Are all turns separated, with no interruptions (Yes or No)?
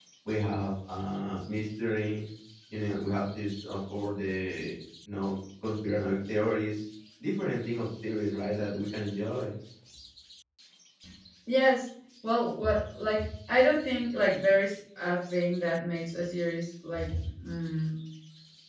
Yes